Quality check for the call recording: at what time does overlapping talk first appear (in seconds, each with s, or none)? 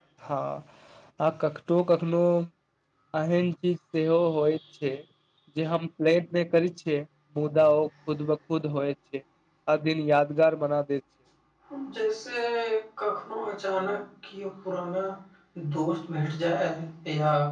none